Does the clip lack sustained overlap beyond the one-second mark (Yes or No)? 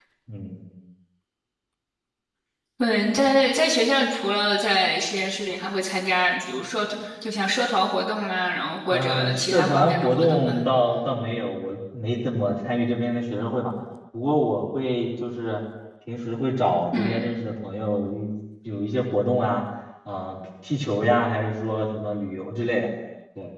No